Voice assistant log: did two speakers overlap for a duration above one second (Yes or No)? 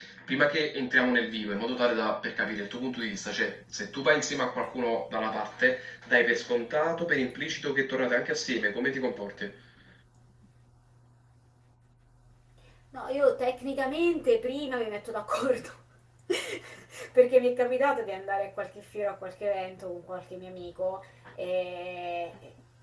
No